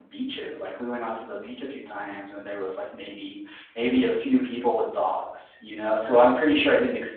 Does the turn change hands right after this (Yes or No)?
No